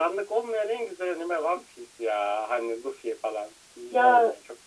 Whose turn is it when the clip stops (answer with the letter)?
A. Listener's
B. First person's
A